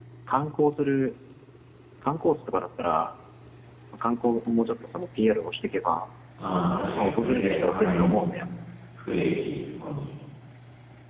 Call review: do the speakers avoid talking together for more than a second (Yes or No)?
No